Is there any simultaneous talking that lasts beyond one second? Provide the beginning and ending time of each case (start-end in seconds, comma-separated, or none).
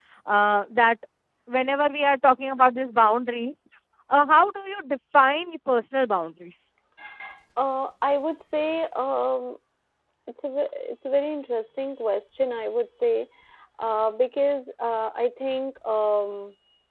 none